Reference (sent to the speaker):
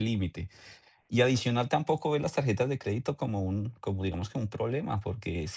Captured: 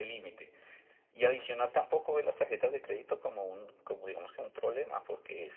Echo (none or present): present